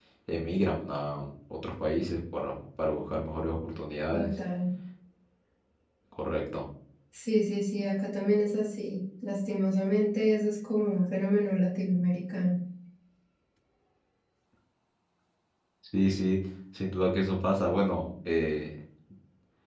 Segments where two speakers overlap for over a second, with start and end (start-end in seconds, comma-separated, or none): none